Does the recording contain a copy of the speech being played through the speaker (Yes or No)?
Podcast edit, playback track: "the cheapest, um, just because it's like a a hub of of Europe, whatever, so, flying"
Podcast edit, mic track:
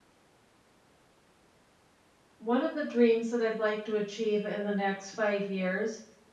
No